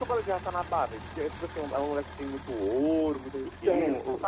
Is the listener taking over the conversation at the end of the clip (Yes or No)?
Yes